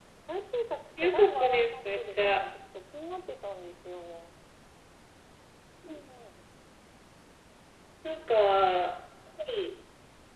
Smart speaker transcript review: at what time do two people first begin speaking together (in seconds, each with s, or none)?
1.0 s